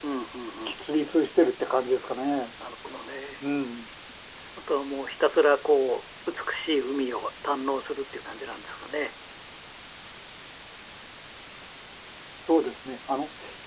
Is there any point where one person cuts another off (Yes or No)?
No